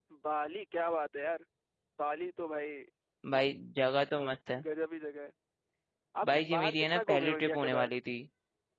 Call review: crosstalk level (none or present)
present